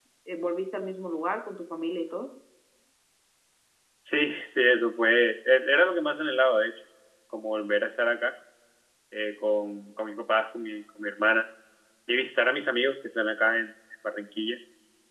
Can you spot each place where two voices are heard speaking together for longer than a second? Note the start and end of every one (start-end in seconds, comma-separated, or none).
none